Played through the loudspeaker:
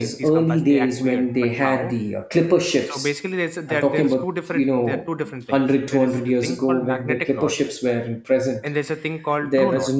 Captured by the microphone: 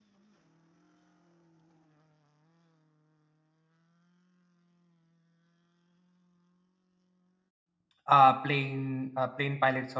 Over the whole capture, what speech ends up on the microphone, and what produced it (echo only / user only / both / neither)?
user only